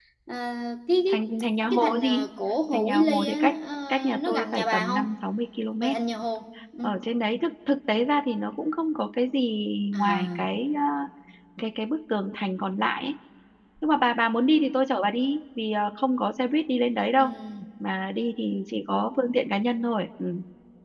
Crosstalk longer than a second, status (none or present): present